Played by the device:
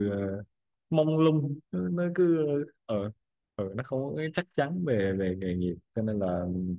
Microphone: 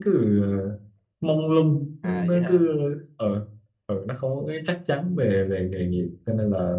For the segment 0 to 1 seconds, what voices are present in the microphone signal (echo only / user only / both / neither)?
echo only